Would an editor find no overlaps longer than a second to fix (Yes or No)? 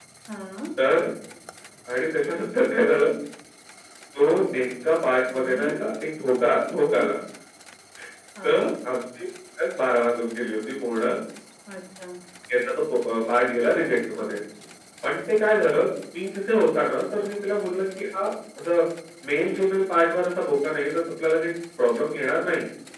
Yes